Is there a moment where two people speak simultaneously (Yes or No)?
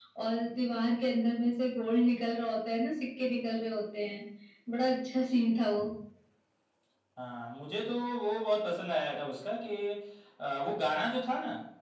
No